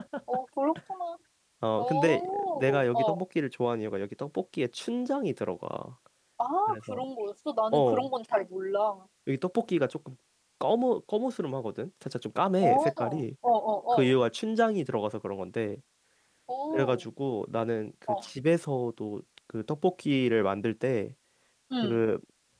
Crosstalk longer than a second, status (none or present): present